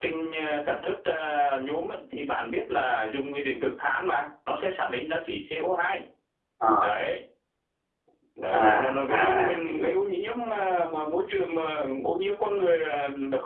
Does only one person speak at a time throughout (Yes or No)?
No